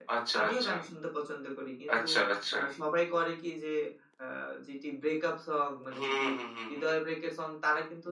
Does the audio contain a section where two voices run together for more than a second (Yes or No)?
No